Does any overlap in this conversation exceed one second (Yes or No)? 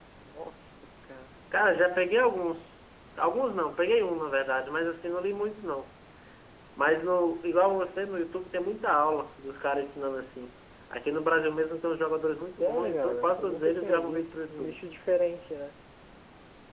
Yes